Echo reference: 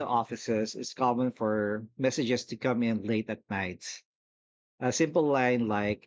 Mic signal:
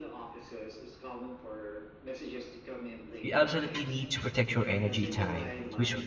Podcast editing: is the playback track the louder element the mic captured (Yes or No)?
No